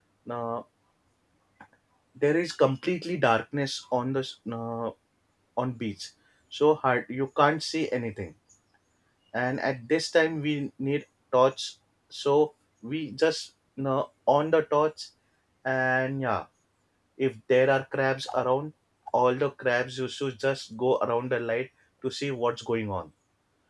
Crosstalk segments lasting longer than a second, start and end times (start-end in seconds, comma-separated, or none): none